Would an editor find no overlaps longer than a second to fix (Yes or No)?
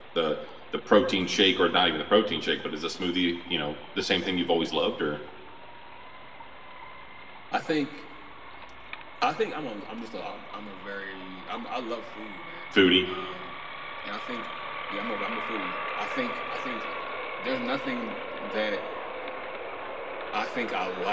Yes